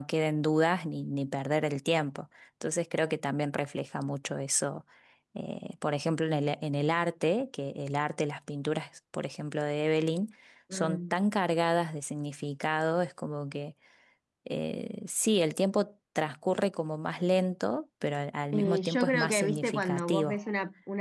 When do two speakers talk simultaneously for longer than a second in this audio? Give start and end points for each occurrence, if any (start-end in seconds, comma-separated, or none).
18.5-20.4